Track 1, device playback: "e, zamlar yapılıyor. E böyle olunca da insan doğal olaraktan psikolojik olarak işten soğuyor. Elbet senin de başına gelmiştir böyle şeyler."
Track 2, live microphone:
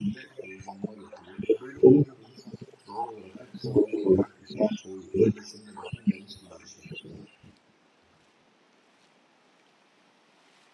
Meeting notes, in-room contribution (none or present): none